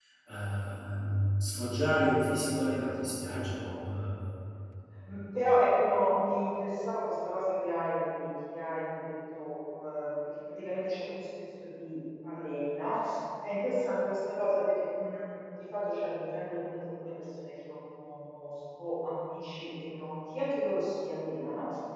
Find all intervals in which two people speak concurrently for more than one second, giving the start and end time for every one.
none

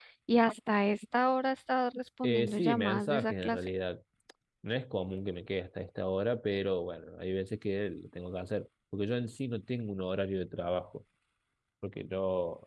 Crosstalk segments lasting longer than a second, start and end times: 2.2-3.6

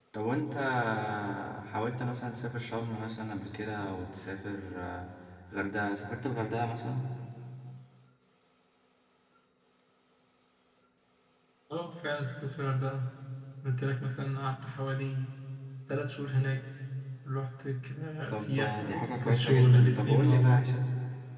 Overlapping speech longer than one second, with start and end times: 18.3-20.6

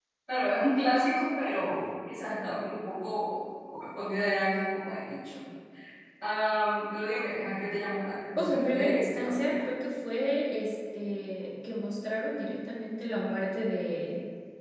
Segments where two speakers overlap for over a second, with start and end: 8.4-9.7

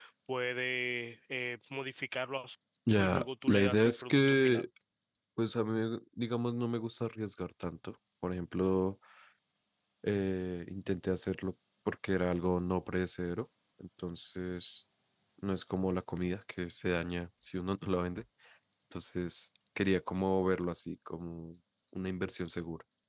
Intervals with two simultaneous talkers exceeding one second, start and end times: 3.0-4.7

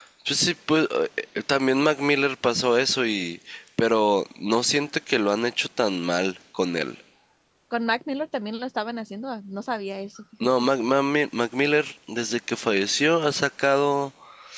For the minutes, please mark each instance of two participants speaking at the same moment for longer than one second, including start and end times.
none

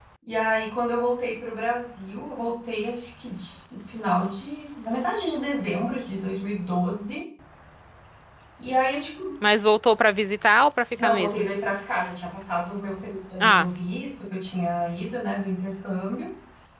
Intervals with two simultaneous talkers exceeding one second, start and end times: none

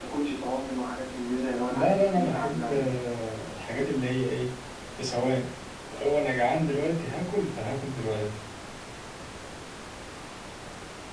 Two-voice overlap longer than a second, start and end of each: 1.7-2.9

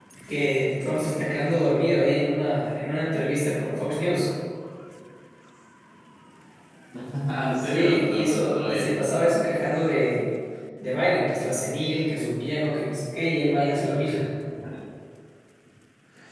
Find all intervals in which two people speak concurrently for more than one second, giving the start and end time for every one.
7.6-9.0

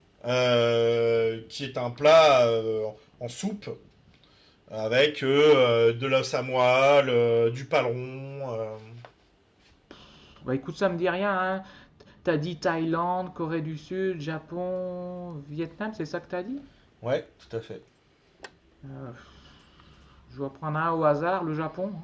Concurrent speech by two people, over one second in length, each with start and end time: none

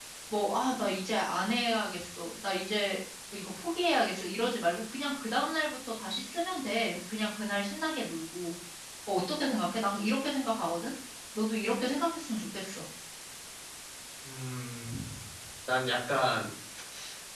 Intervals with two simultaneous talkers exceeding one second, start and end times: none

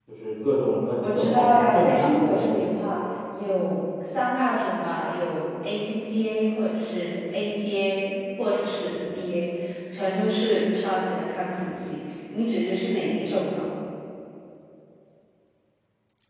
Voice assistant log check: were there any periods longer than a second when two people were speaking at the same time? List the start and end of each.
1.2-2.5

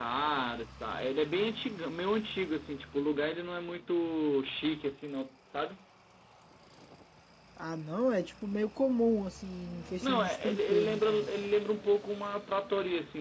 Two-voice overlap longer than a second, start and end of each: 10.0-11.3

